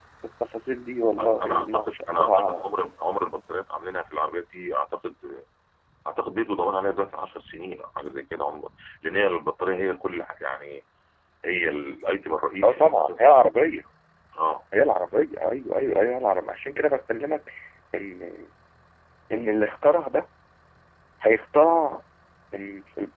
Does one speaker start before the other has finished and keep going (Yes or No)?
Yes